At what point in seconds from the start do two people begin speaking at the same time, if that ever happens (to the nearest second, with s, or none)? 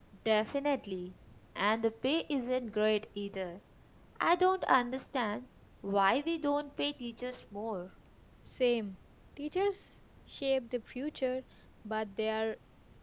none